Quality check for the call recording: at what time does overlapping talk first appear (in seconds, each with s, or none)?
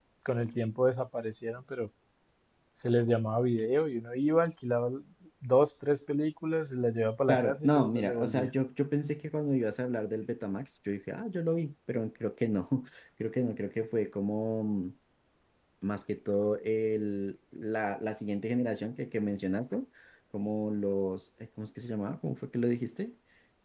7.3 s